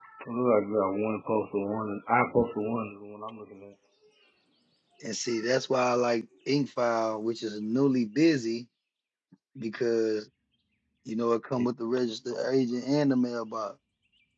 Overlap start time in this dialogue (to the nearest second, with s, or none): none